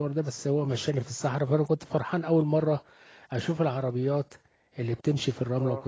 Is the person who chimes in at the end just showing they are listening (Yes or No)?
Yes